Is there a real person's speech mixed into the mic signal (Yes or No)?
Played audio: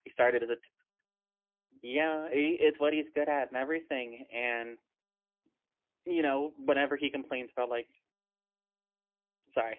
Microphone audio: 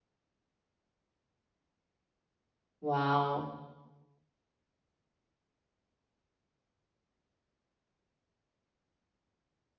Yes